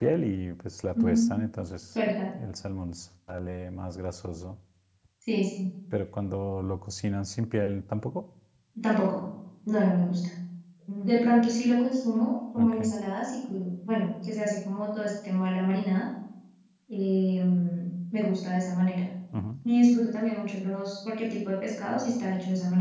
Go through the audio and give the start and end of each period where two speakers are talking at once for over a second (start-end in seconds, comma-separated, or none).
none